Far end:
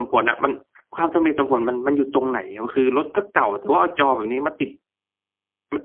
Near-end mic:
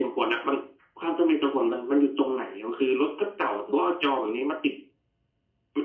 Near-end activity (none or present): none